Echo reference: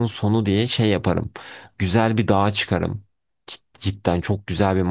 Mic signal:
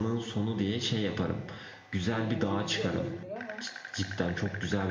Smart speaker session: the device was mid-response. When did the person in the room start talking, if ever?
2.1 s

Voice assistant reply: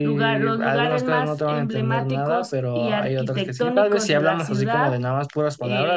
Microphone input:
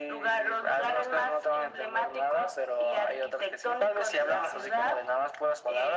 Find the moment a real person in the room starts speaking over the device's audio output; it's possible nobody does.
none

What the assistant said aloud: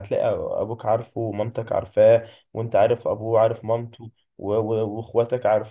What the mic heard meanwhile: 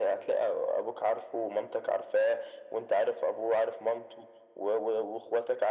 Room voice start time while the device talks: none

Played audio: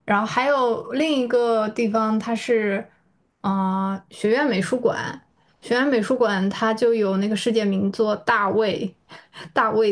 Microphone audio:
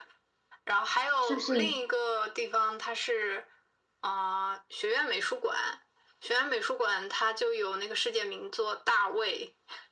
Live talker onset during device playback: 1.2 s

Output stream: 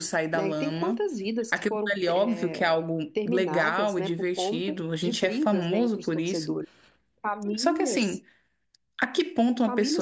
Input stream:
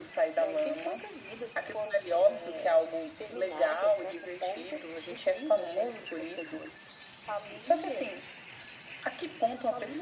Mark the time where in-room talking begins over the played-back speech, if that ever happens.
none

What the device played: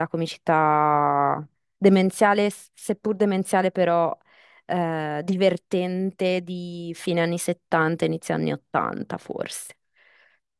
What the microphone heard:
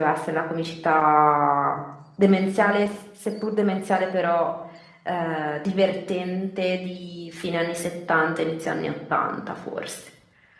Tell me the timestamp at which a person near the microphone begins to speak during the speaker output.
none

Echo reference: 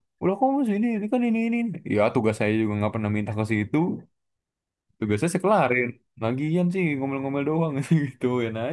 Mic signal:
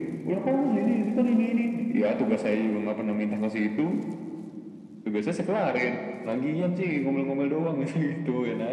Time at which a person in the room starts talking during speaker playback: none

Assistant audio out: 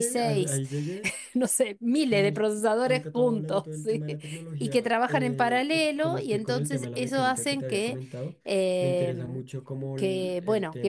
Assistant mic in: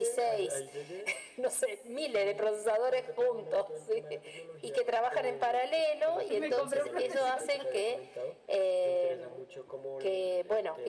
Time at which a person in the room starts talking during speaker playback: 6.3 s

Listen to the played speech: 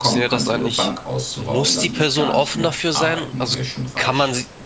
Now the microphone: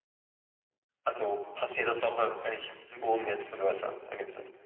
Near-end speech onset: 1.0 s

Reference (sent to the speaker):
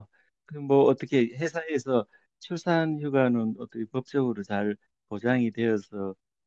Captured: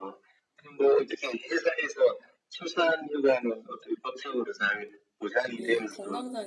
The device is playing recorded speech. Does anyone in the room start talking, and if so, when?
5.5 s

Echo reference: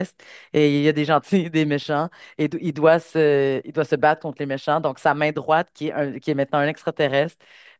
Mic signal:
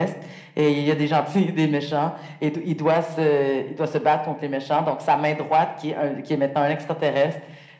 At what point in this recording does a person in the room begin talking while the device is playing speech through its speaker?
none

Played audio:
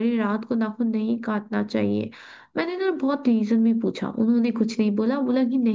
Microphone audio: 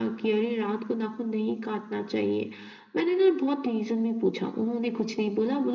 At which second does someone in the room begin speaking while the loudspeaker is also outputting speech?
none

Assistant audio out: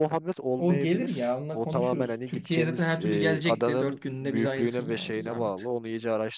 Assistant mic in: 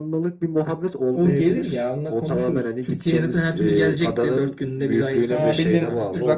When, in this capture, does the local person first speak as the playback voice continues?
5.3 s

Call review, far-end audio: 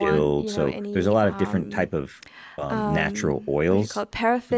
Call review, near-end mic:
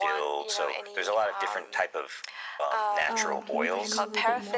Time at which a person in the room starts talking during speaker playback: 3.1 s

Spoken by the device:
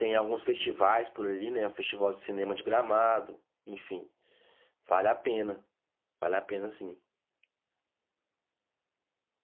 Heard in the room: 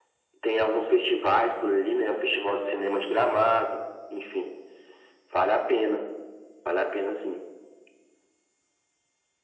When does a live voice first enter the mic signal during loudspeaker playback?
none

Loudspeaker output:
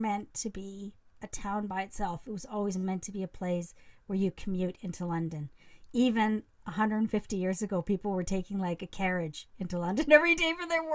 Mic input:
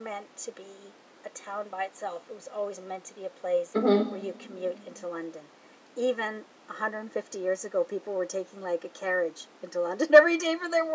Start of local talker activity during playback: 3.7 s

